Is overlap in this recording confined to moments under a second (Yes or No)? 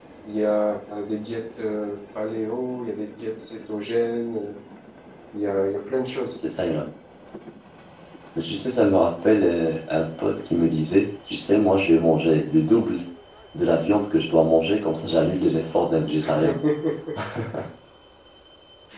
Yes